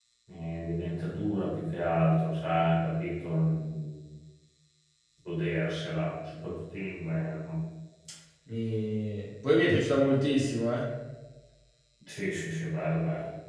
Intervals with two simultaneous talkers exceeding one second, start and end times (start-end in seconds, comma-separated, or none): none